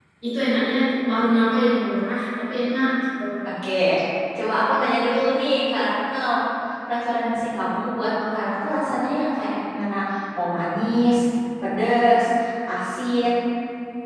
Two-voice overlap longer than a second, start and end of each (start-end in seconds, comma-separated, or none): none